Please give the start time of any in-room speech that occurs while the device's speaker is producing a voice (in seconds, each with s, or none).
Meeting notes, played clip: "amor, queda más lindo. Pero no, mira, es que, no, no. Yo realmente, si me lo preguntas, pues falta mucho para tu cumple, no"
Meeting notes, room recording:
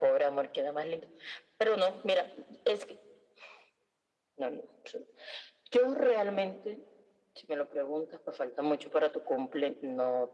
none